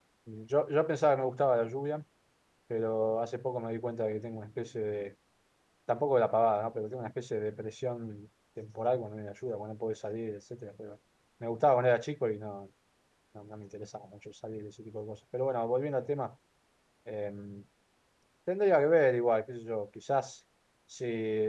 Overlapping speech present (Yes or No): No